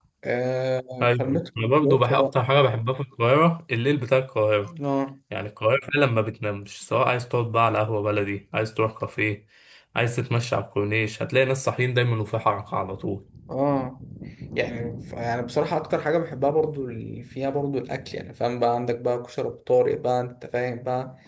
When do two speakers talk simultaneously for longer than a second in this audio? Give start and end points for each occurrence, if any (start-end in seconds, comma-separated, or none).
1.0-2.4